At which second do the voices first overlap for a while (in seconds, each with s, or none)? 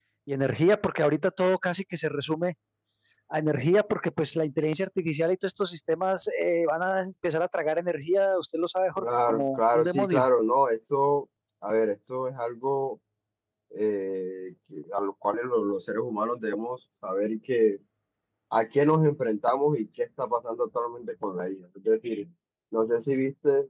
9.0 s